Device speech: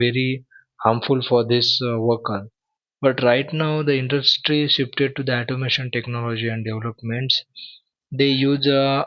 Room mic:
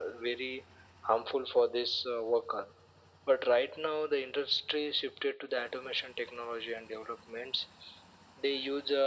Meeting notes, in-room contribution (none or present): none